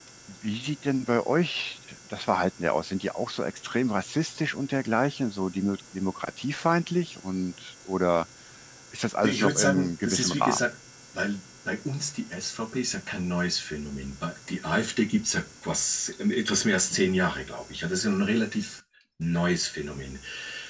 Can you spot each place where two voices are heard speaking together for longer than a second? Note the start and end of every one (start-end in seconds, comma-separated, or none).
9.2-10.7